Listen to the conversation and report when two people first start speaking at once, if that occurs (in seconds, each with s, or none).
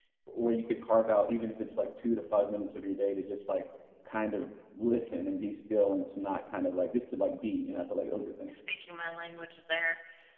none